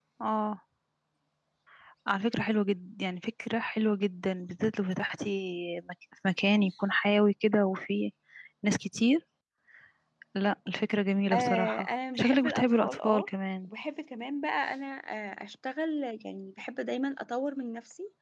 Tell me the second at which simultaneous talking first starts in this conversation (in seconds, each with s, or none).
11.3 s